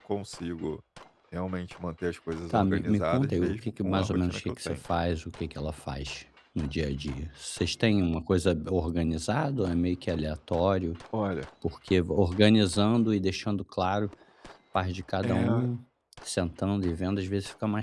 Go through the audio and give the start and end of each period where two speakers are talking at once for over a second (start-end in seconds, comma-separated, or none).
2.5-4.8